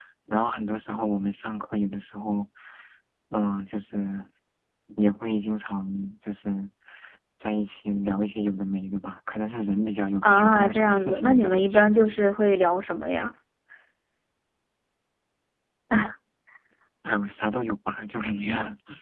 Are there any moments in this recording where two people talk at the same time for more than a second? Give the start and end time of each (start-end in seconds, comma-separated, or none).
10.2-11.9